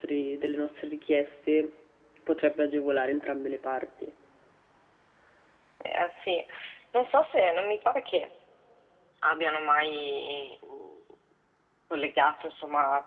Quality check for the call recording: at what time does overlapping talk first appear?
none

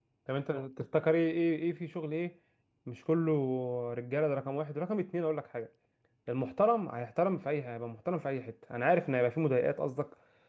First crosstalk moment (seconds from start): none

